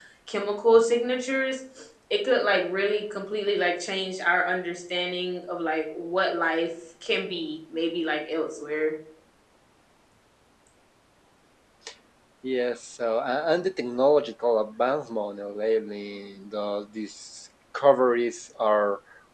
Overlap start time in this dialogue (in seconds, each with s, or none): none